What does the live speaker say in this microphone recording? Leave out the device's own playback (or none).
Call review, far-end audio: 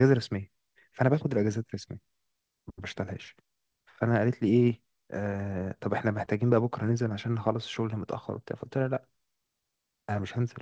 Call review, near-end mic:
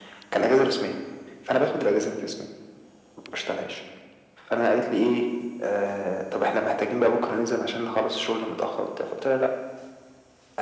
none